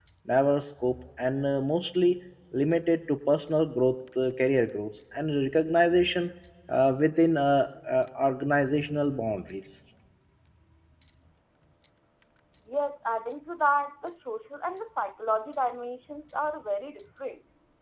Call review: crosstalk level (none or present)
none